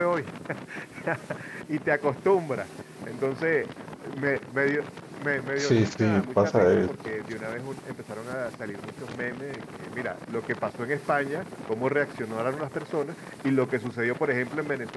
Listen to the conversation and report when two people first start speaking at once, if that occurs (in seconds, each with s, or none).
5.6 s